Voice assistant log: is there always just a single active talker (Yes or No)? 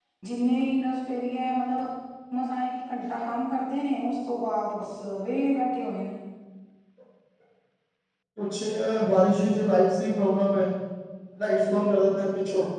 Yes